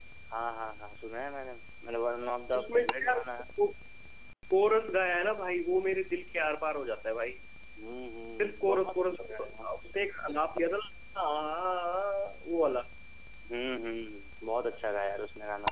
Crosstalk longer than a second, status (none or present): present